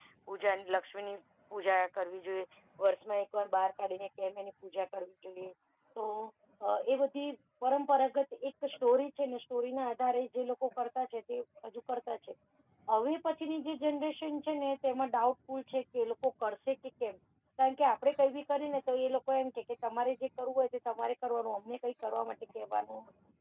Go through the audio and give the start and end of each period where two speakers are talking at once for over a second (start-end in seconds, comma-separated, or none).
none